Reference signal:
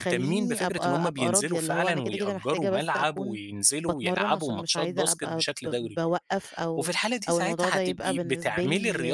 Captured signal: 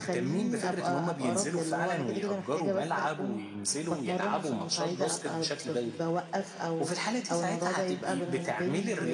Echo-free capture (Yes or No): No